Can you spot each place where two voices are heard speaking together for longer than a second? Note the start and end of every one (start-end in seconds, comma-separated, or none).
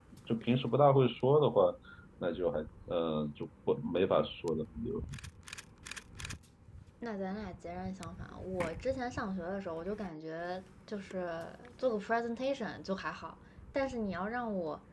none